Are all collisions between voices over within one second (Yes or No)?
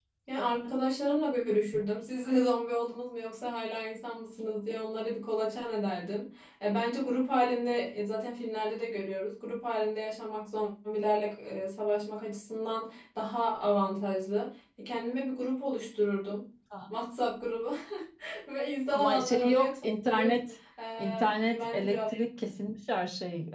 No